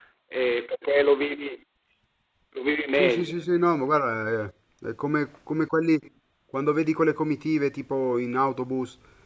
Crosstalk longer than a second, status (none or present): none